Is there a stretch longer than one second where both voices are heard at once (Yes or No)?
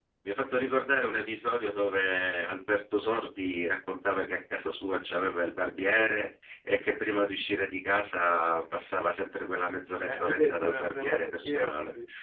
Yes